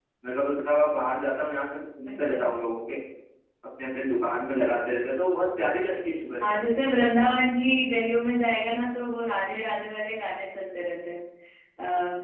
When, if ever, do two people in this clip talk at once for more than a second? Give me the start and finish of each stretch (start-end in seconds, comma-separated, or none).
none